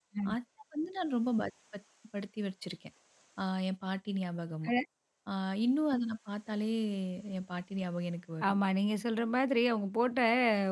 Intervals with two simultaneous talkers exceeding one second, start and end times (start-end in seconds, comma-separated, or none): none